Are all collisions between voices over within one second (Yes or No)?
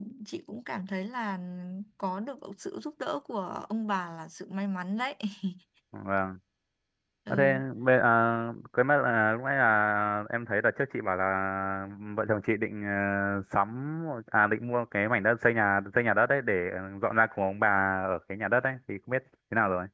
Yes